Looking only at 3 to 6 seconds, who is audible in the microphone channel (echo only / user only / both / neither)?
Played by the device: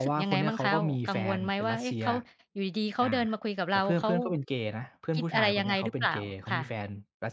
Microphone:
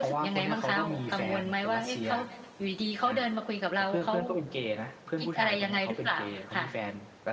echo only